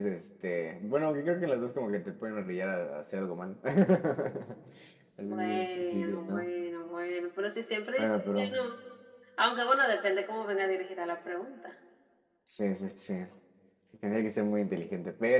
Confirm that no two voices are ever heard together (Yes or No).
No